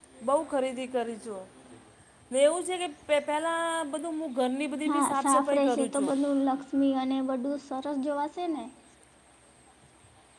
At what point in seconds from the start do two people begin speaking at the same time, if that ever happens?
4.8 s

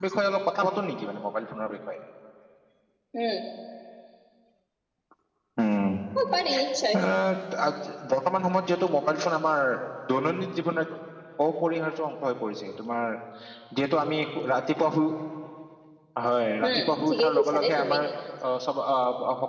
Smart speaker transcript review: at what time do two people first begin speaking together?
16.6 s

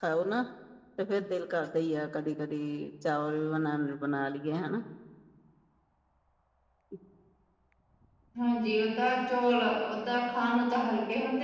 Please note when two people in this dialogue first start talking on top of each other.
none

